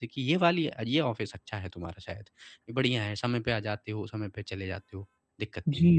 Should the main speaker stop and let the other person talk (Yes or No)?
Yes